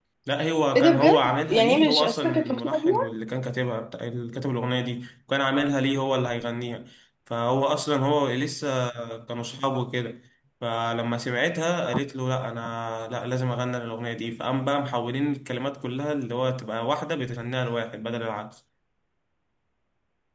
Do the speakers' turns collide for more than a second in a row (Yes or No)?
Yes